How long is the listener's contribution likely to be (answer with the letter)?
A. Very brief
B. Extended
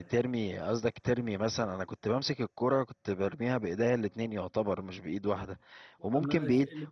A